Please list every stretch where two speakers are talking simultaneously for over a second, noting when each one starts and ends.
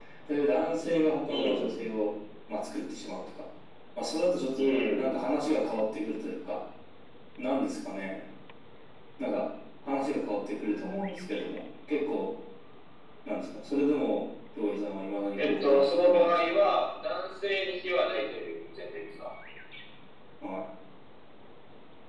15.3-16.6

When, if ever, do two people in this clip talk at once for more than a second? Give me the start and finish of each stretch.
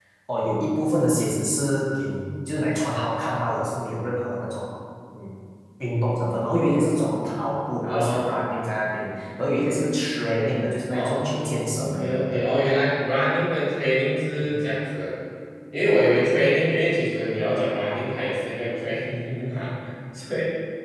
10.9-12.4

